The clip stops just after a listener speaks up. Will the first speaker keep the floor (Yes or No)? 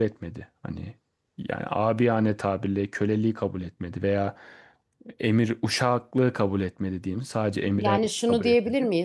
No